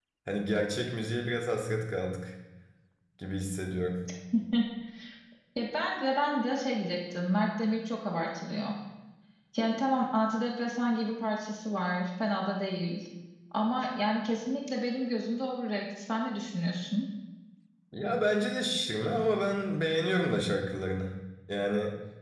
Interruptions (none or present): none